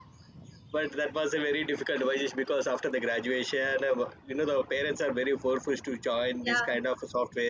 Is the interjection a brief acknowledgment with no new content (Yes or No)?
Yes